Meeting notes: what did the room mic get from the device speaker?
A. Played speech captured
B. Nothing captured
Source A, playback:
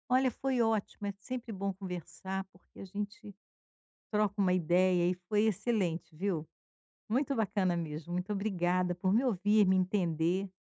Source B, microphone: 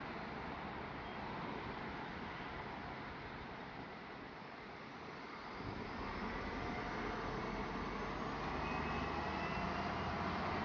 B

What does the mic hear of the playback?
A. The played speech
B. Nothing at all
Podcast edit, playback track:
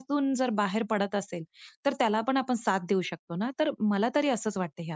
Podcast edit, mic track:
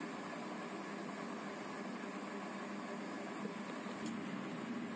B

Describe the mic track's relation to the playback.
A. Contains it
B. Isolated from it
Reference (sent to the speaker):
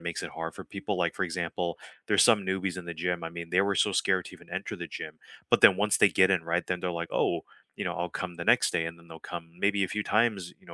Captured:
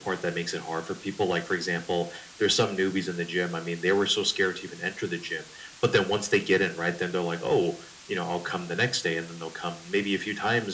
A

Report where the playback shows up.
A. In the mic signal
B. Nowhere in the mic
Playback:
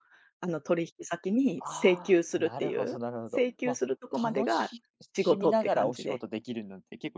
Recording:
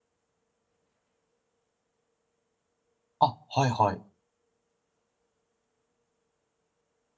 B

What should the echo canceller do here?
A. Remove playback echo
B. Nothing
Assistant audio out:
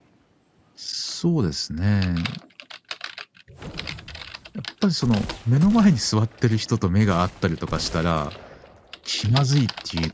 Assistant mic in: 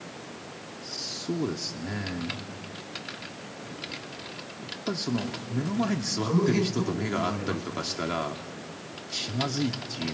A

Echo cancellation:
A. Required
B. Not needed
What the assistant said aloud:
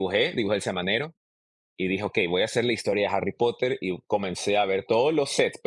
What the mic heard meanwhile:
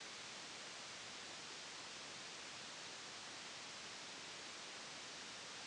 B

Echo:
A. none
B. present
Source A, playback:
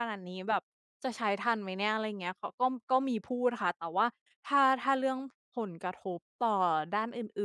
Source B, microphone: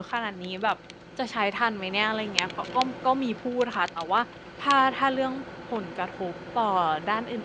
B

